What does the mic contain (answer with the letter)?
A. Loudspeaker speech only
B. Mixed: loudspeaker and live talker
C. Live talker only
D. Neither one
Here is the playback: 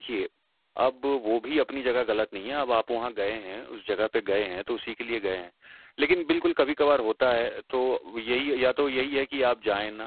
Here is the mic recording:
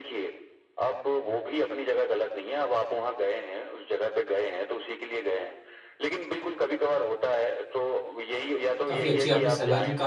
B